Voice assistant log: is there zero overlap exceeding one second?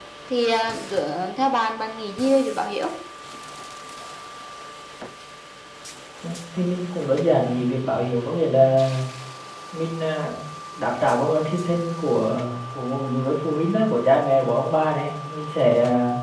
Yes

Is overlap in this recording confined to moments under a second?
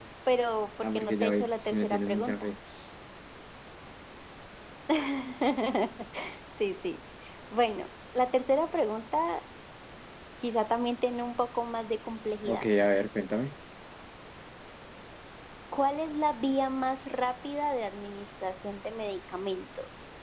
No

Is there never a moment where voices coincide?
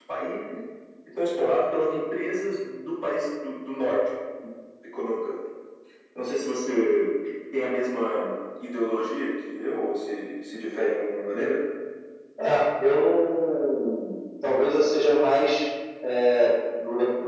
Yes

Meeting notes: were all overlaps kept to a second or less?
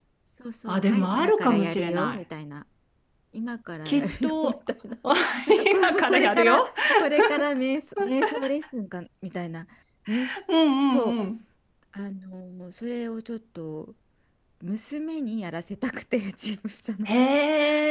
No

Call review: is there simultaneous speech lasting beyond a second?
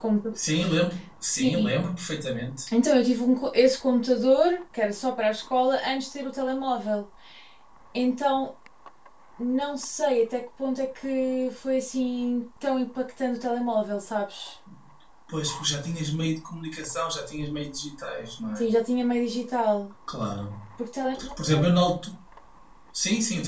No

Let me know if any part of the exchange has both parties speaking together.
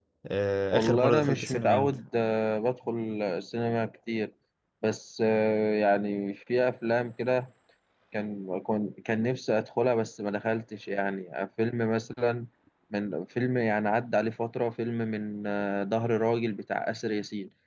Yes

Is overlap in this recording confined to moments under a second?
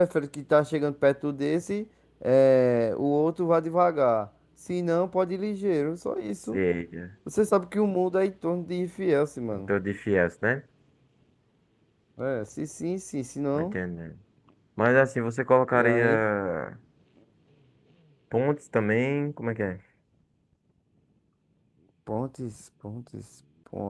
Yes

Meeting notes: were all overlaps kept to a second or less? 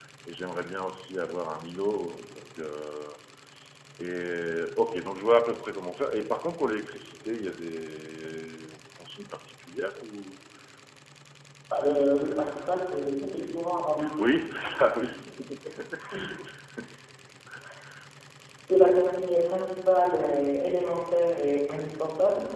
Yes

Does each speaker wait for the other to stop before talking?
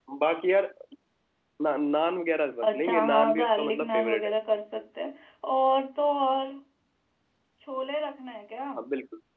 No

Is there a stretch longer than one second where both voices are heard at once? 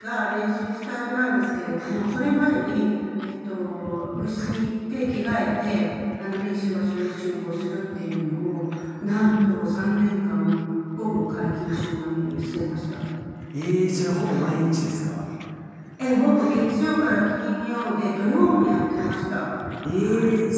No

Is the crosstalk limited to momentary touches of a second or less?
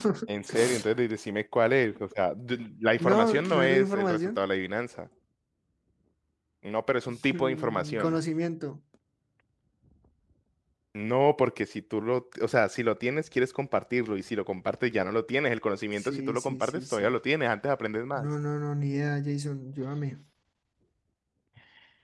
No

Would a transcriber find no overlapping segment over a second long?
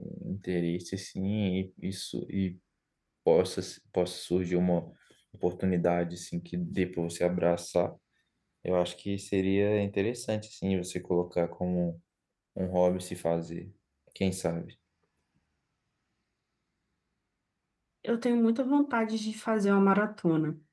Yes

